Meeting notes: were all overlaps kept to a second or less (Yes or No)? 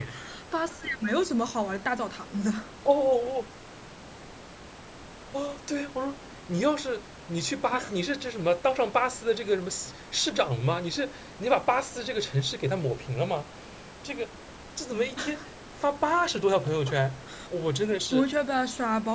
Yes